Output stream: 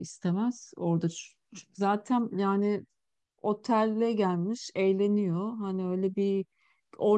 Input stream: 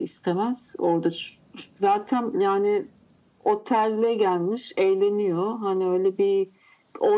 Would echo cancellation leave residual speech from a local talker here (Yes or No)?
No